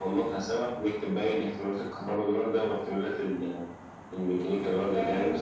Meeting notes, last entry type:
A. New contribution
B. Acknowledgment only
A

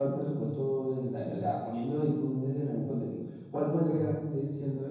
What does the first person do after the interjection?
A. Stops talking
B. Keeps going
B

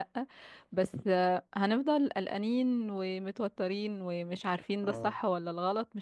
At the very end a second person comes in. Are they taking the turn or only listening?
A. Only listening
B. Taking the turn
A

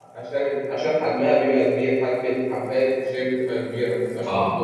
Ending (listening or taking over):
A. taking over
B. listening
A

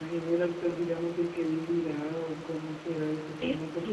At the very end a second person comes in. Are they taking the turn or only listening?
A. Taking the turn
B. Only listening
A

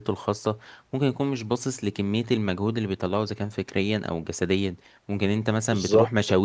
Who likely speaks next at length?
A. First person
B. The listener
A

